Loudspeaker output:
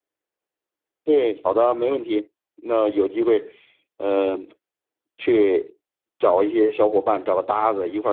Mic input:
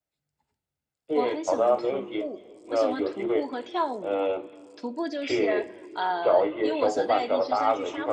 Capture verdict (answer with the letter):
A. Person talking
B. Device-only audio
A